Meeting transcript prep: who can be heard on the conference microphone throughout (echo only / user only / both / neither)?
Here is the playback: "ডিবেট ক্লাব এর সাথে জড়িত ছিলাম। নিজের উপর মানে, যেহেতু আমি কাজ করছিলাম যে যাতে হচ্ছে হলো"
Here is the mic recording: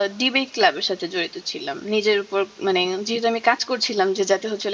echo only